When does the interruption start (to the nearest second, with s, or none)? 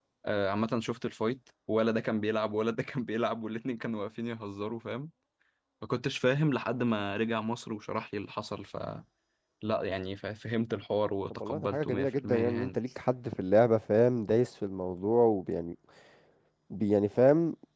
11 s